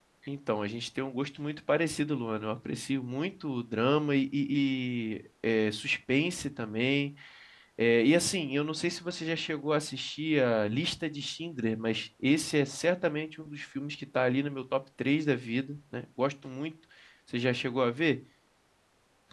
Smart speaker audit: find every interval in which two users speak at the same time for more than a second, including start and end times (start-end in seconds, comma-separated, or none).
none